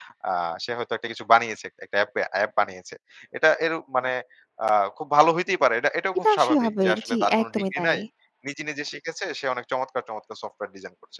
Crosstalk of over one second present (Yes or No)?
Yes